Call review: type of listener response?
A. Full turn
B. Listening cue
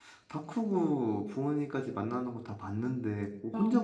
B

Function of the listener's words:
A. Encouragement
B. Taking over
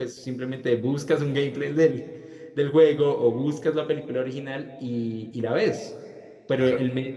A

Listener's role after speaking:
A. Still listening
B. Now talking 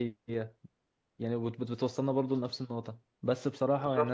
A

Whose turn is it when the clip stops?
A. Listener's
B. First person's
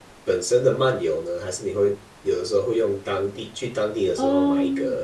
A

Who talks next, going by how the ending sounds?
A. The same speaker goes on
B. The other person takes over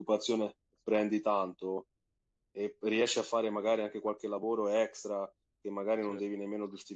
A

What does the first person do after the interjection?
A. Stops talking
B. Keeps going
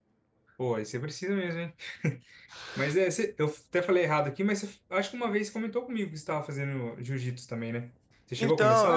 A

